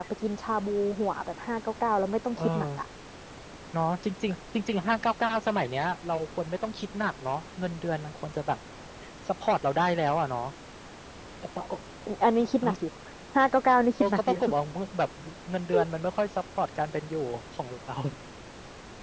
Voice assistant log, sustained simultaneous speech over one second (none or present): none